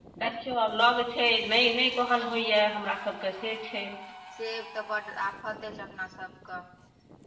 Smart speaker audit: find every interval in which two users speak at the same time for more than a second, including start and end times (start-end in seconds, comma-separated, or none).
none